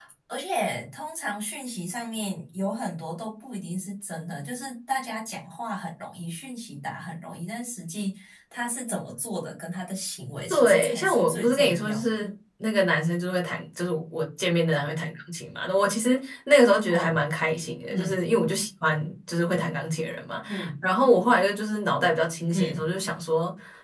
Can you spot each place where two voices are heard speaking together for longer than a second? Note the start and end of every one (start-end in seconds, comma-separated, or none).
10.5-12.3